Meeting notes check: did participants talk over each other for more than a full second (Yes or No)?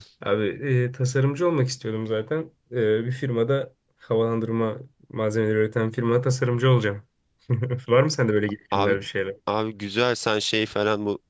No